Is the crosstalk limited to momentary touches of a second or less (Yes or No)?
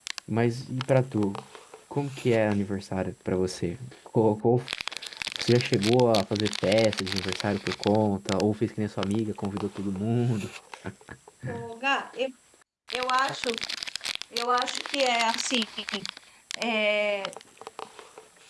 Yes